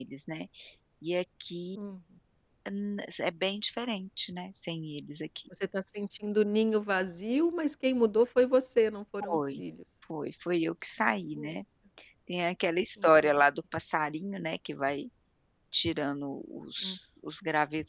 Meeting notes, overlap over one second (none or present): none